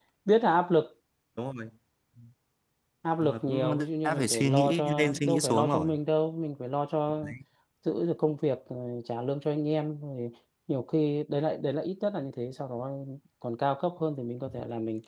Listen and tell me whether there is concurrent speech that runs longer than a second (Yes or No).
Yes